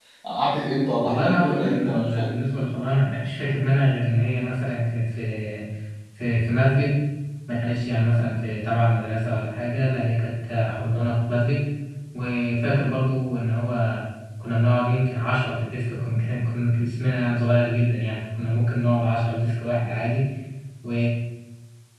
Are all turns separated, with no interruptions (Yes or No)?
No